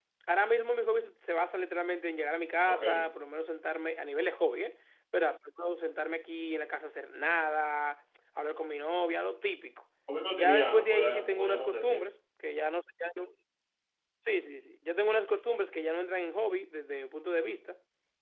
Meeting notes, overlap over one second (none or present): present